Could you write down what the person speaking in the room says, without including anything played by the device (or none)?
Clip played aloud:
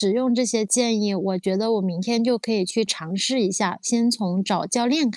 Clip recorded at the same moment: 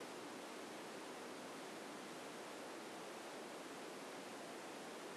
none